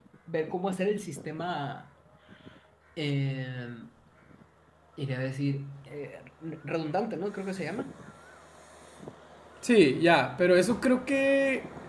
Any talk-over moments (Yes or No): No